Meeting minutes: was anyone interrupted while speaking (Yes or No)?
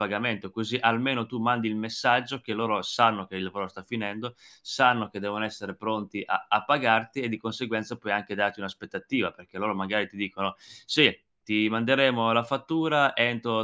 No